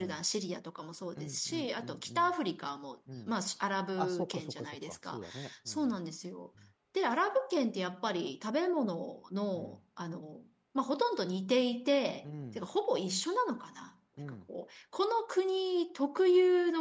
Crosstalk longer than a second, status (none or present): present